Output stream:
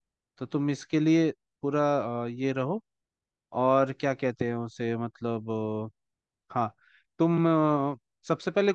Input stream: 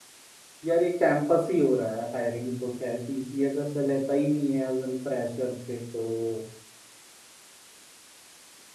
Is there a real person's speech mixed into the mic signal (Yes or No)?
Yes